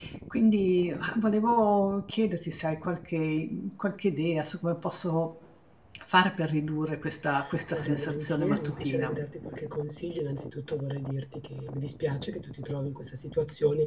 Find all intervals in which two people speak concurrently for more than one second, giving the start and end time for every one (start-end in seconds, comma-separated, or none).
7.7-9.1